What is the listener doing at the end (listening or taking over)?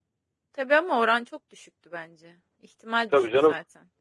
taking over